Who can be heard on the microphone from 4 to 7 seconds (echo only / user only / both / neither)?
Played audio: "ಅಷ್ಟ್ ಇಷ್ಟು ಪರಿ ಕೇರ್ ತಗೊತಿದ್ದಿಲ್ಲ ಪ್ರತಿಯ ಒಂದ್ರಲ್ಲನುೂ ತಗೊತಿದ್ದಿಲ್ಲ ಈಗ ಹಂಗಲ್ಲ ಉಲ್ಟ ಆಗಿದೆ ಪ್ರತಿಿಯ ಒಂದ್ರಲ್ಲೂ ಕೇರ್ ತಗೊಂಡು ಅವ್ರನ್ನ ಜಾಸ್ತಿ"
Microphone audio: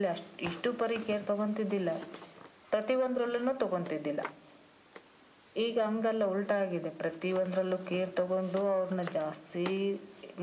echo only